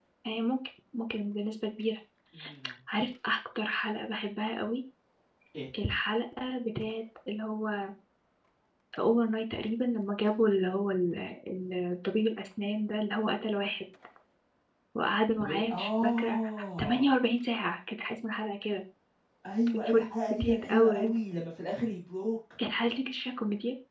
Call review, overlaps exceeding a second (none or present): present